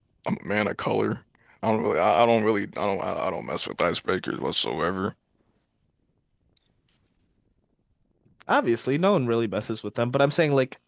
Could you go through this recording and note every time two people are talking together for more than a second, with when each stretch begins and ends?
none

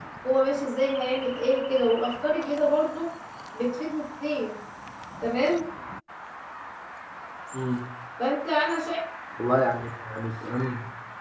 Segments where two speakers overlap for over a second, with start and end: none

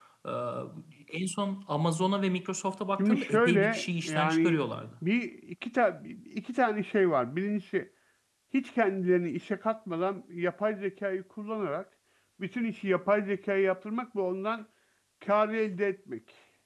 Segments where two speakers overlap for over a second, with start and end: 3.0-4.6

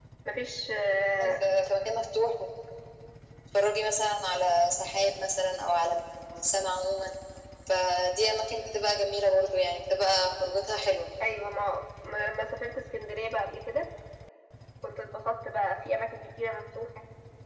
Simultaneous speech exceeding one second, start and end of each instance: none

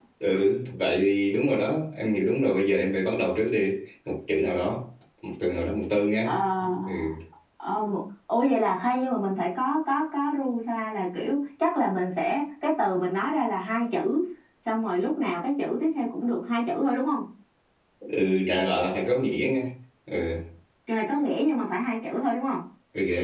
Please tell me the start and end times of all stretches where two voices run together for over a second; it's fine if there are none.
none

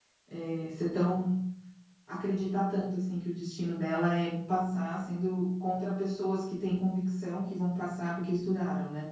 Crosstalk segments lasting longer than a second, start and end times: none

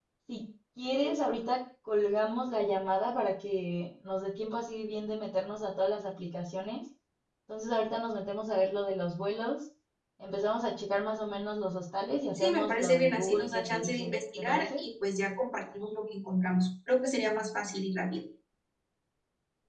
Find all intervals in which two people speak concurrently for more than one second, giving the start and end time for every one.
12.4-14.8

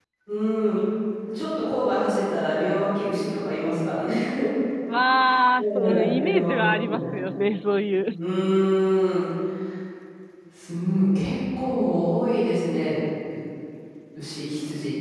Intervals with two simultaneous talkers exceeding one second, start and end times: 5.6-7.0

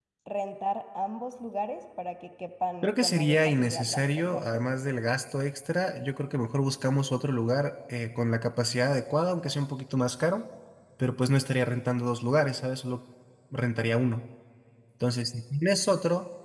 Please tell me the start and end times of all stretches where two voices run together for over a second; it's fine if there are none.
2.8-4.6

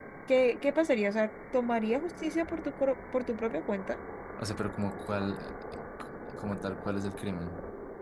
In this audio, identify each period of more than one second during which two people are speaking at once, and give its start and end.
none

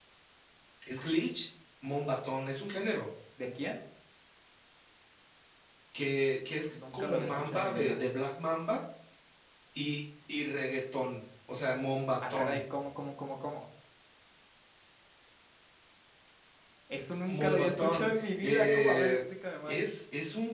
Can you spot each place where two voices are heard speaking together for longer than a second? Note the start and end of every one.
6.7-8.0, 17.3-19.2

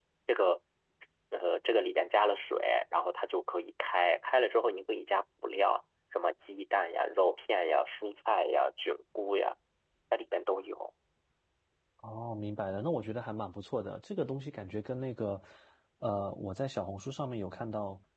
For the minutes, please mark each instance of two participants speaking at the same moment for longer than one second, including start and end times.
none

